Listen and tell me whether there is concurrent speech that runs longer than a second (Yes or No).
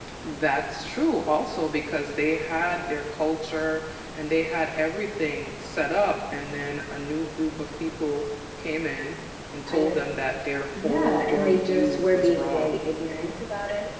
Yes